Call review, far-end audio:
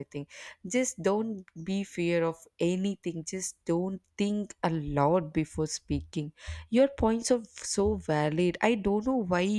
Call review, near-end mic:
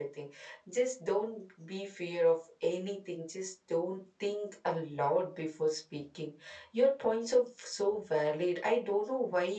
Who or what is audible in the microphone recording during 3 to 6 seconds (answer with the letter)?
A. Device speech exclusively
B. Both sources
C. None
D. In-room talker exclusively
A